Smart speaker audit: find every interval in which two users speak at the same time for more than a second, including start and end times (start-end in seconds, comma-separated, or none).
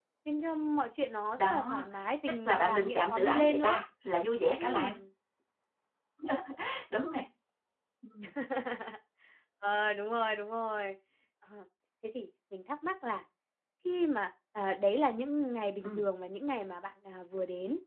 2.5-3.8